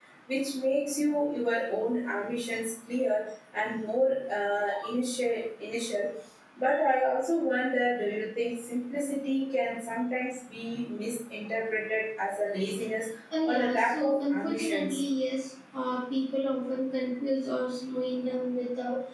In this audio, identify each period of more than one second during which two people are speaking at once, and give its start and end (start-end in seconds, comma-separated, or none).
13.4-15.0